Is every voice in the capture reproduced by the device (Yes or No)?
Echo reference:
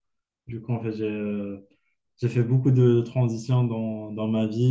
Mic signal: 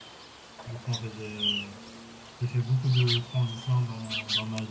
Yes